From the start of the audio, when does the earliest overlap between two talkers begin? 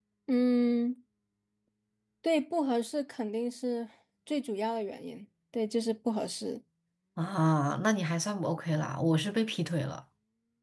none

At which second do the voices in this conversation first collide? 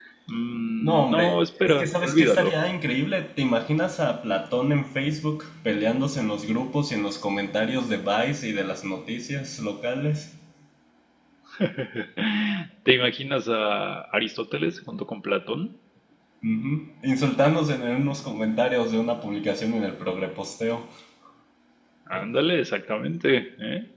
1 s

